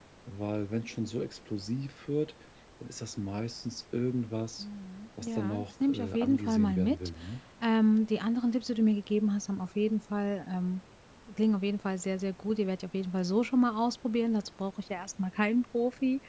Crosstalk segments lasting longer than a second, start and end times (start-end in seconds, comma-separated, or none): 5.2-7.0